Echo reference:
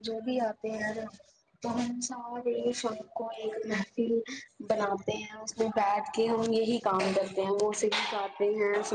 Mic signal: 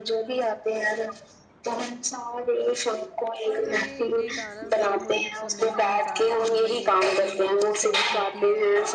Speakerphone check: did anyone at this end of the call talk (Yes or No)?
Yes